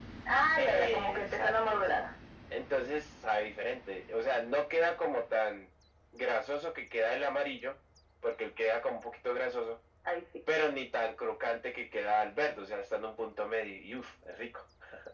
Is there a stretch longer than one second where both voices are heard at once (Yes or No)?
Yes